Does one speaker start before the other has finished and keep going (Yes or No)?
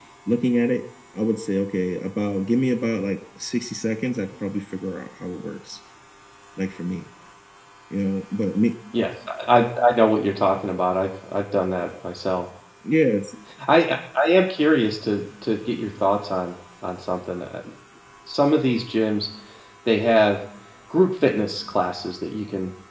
No